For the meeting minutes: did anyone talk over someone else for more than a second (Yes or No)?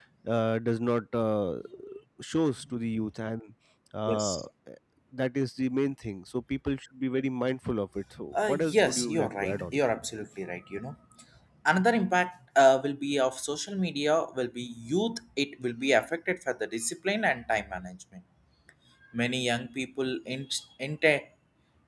Yes